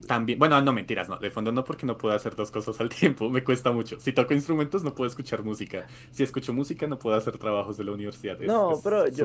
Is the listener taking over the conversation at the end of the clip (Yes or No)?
Yes